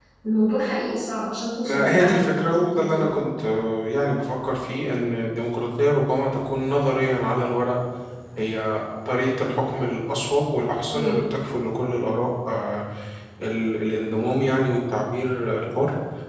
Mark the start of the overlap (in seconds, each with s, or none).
1.6 s